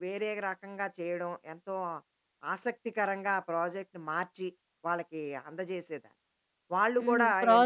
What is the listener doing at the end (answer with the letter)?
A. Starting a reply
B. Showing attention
A